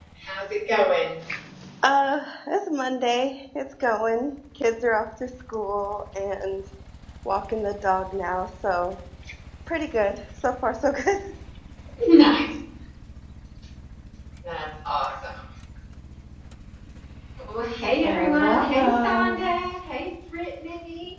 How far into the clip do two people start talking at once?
18 s

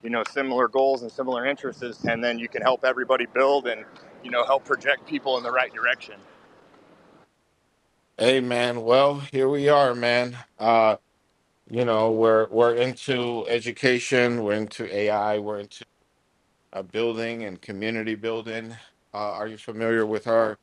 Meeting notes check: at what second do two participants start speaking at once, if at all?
none

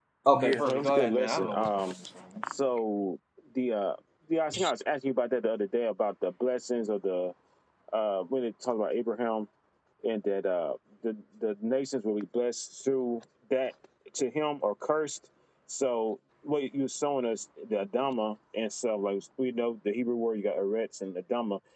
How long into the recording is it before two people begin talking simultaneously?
1 s

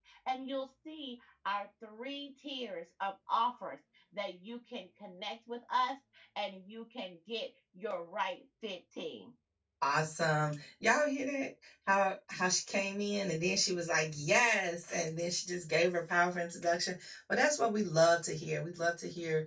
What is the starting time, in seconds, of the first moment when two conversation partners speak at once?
none

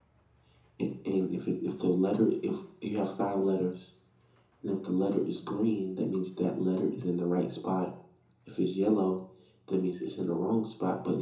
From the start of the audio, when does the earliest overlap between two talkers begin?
none

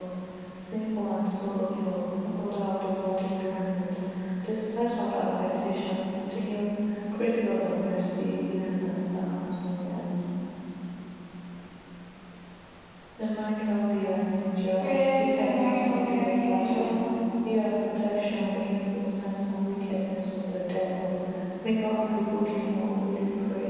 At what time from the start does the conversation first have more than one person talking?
15 s

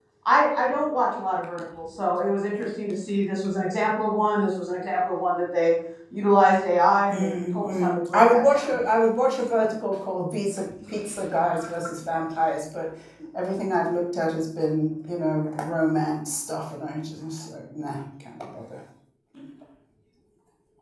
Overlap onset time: 7 s

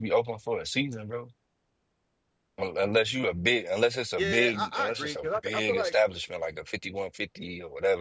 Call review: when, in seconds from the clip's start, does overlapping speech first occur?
4 s

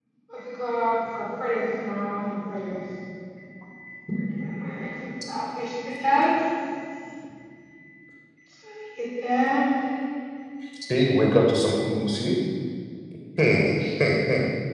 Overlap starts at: none

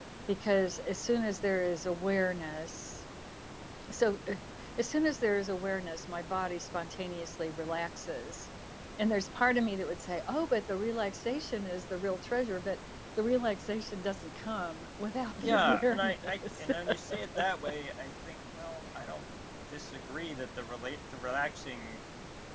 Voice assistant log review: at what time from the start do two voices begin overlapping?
15 s

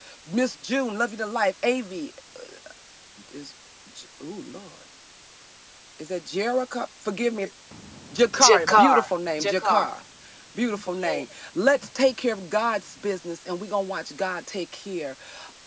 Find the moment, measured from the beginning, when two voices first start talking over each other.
8 s

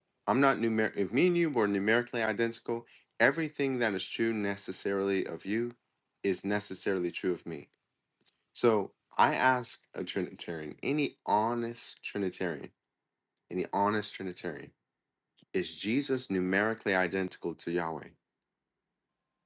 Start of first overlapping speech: none

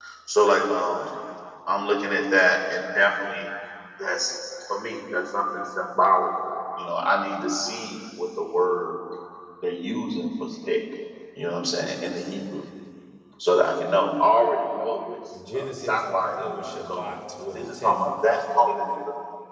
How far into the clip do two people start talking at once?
16 s

